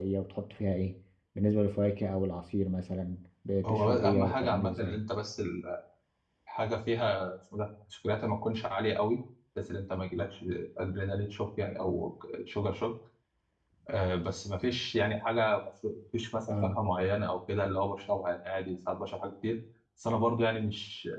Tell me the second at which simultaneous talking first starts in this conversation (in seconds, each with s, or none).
3.6 s